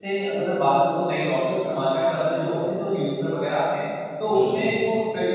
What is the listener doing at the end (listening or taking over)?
listening